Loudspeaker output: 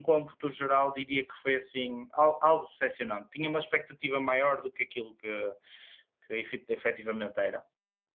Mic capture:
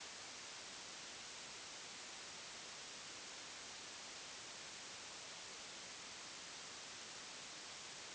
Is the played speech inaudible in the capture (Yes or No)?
Yes